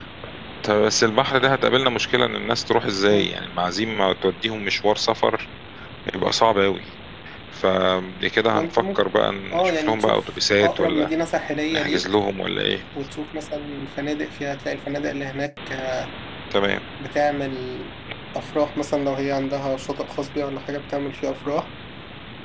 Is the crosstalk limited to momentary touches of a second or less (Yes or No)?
No